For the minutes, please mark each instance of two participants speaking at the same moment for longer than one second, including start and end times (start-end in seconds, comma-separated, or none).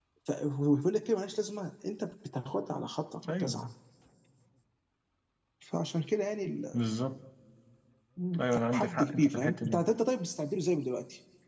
8.4-9.8